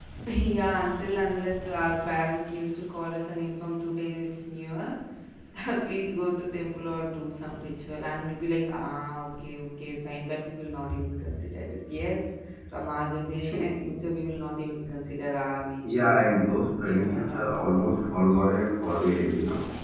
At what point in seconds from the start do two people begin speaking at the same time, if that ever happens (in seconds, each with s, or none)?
15.8 s